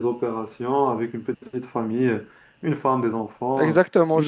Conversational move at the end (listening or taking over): taking over